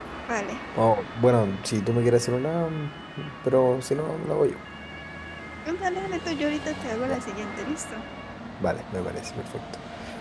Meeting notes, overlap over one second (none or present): none